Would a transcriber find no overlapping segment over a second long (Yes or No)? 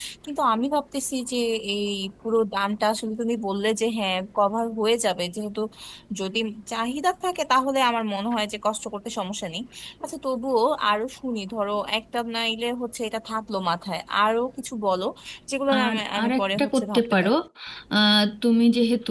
No